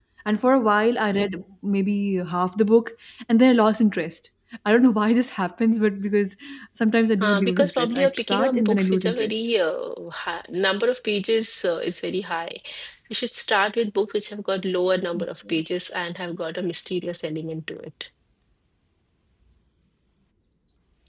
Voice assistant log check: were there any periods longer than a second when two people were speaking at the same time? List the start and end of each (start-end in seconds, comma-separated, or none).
7.2-9.3